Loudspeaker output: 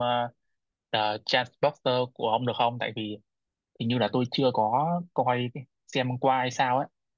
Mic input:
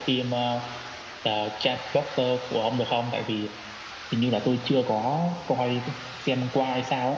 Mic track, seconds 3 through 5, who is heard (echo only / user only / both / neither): echo only